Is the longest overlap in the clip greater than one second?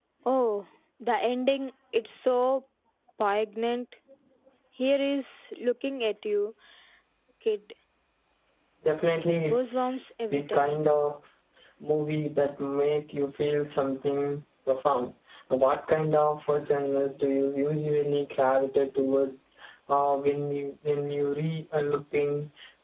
Yes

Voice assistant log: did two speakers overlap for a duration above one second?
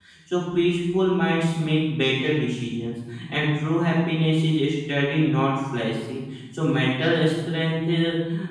No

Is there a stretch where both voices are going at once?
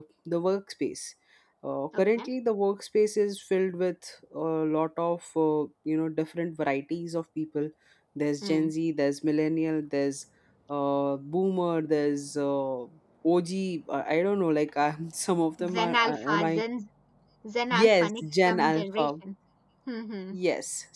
Yes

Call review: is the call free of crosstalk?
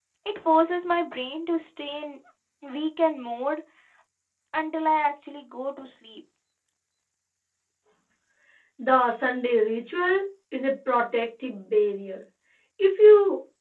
Yes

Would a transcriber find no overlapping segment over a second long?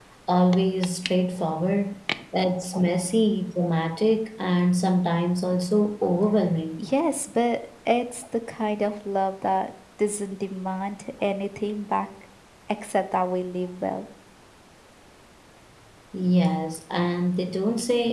Yes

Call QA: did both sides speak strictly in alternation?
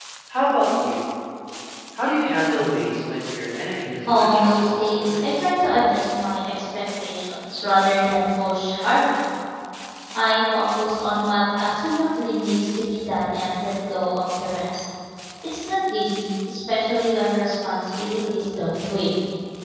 No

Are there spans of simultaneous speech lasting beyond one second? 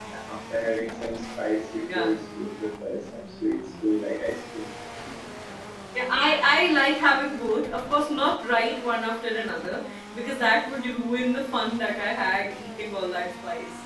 No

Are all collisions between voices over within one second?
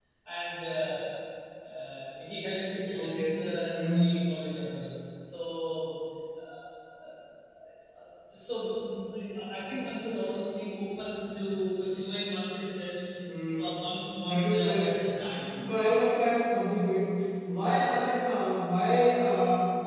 No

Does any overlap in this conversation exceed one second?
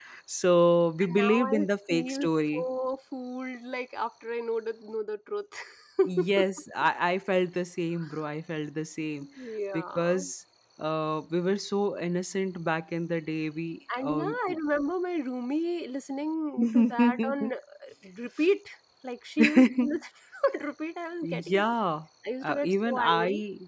Yes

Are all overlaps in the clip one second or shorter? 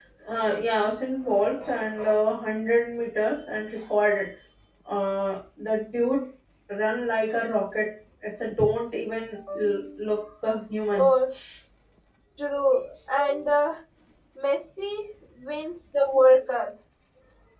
Yes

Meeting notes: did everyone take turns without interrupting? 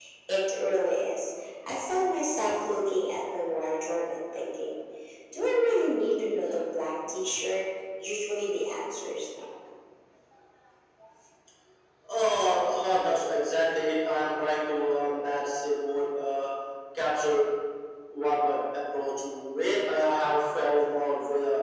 Yes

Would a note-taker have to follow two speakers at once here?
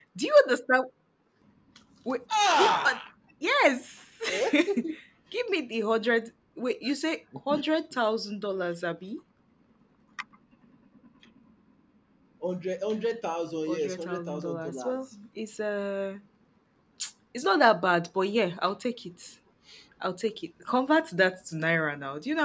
Yes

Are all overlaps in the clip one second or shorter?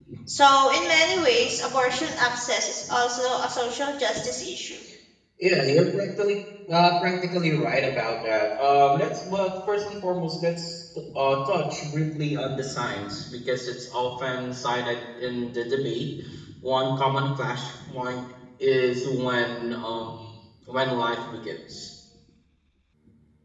Yes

